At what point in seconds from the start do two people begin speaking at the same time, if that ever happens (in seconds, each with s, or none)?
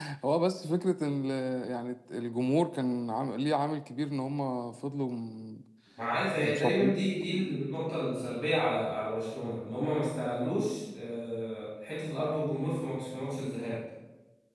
6.4 s